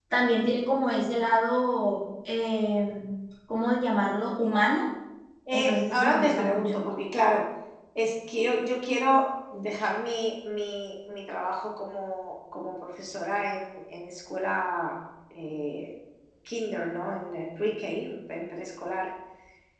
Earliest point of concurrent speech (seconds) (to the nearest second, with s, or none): 6 s